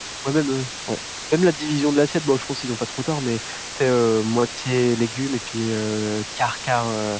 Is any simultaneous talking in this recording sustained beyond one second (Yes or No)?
No